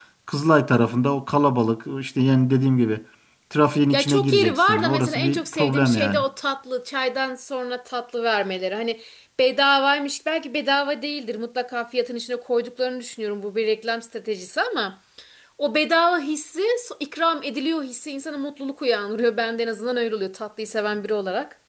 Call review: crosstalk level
present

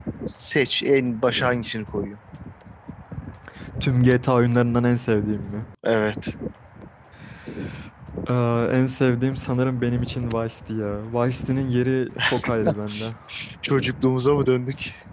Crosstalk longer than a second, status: none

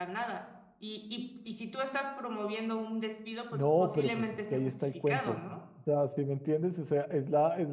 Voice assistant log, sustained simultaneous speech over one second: present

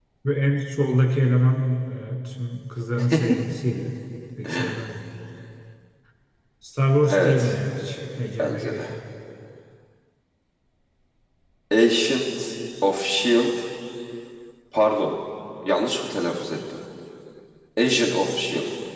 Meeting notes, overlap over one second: none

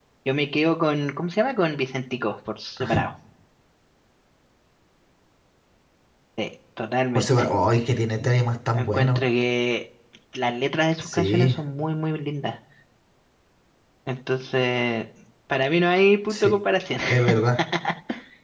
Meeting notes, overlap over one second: none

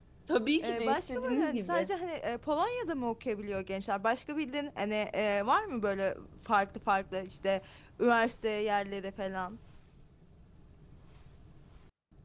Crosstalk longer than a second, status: present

